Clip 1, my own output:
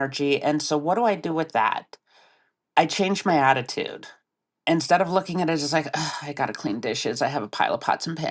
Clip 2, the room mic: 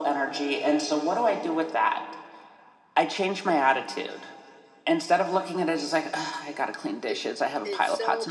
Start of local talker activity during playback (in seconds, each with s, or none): 7.1 s